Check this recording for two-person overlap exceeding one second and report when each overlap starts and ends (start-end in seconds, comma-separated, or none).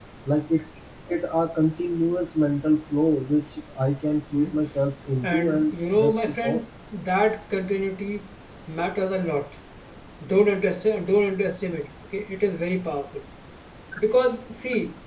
5.2-6.6